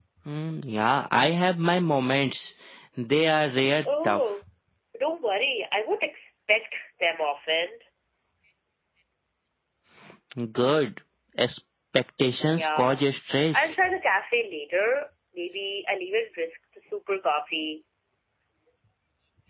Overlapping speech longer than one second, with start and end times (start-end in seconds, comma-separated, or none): none